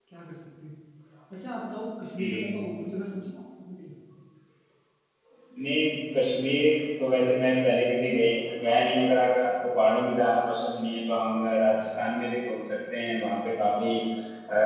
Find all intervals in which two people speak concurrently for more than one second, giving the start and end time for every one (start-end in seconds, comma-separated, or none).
none